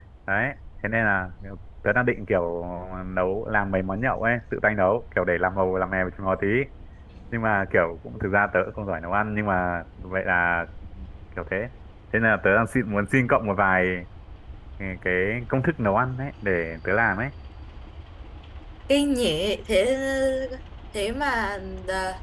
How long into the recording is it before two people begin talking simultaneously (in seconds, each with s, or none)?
none